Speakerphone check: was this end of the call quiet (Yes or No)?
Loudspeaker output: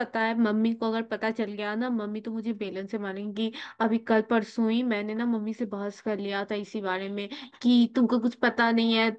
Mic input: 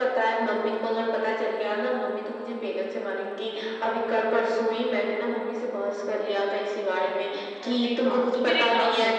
No